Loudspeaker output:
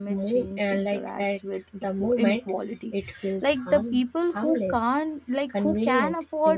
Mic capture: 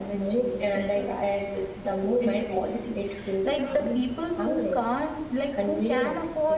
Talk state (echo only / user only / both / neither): echo only